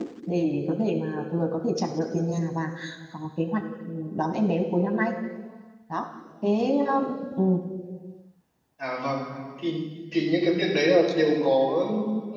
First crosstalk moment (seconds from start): none

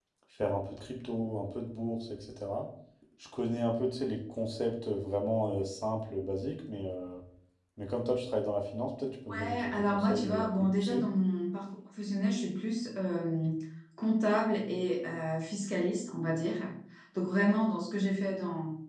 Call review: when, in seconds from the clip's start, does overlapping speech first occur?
9 s

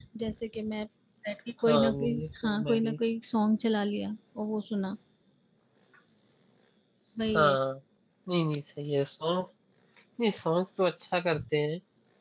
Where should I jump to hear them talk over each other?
2 s

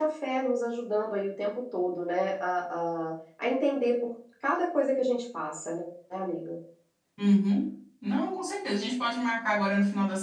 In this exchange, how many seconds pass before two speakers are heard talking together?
none

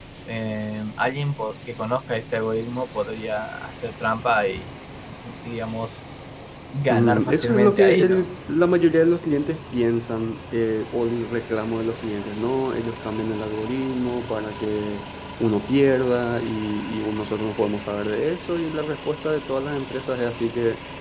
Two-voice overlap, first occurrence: 7 s

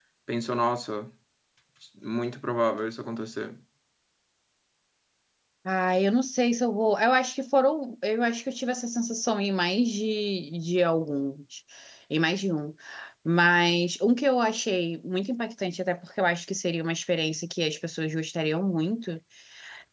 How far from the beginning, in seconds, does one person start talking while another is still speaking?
none

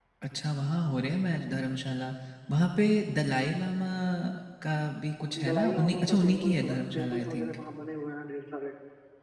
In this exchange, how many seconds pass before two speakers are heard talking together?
5 s

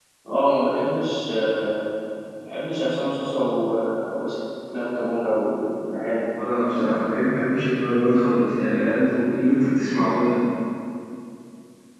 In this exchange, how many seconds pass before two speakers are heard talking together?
none

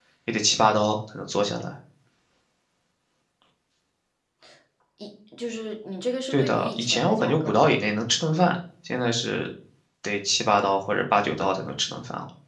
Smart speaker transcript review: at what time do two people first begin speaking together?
6 s

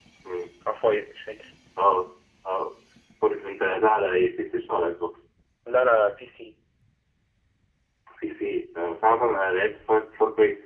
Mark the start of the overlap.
none

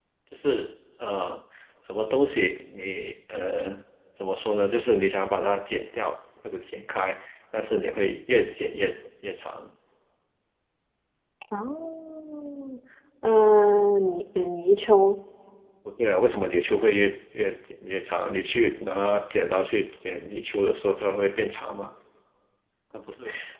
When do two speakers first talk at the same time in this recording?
none

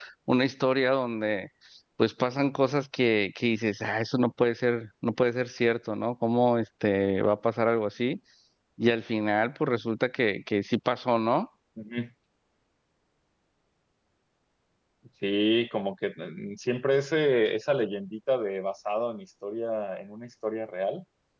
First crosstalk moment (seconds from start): none

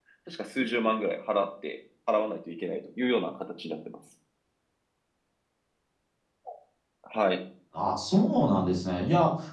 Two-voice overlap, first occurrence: none

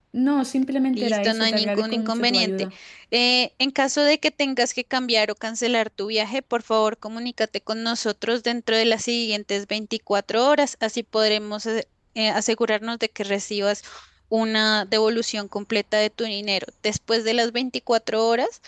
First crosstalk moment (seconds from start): 1 s

